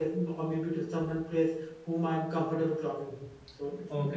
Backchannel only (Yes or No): No